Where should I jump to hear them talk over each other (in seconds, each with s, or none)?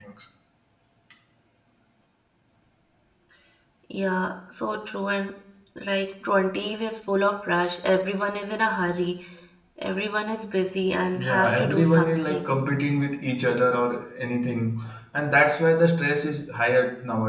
11.1 s